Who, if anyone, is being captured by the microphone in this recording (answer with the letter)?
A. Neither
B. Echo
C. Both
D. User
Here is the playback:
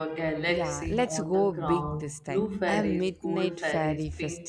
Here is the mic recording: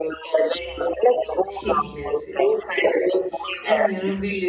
C